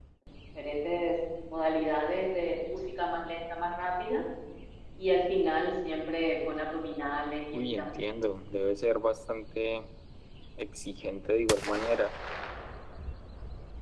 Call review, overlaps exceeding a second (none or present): none